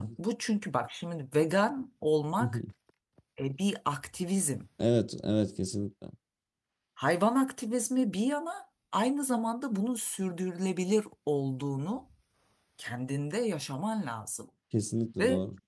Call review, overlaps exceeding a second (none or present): none